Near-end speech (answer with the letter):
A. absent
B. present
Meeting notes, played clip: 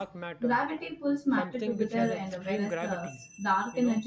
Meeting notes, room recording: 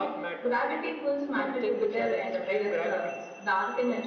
A